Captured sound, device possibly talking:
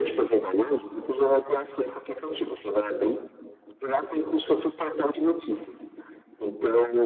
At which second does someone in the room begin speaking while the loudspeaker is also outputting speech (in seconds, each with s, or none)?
none